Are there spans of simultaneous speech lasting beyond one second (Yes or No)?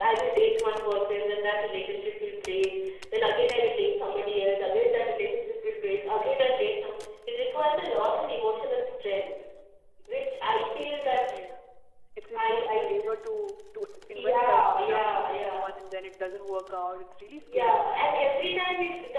Yes